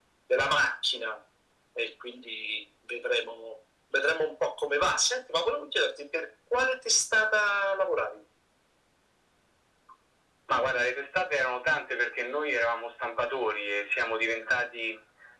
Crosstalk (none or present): none